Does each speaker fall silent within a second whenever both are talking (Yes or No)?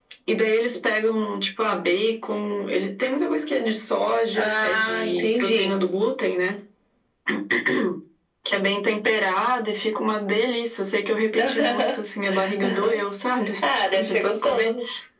No